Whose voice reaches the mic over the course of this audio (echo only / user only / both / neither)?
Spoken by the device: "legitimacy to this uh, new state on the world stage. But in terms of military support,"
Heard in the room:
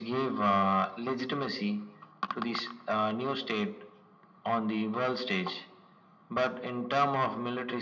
echo only